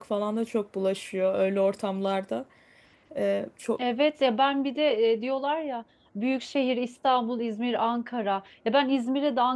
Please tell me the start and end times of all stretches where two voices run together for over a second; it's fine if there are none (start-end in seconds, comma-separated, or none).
none